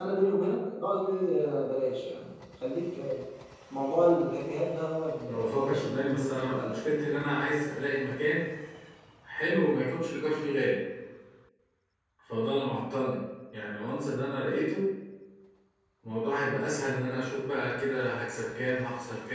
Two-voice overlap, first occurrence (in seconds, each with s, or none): 5.3 s